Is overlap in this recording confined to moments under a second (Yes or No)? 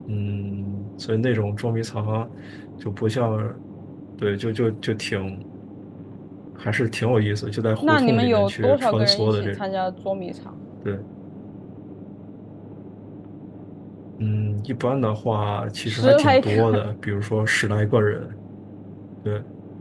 No